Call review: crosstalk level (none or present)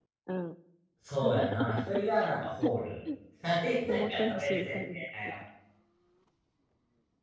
present